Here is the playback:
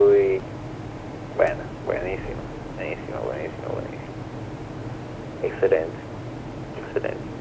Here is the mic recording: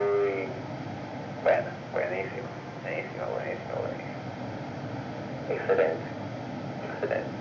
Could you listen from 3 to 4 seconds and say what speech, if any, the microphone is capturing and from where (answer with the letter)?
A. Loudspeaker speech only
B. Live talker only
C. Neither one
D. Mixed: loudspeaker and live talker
A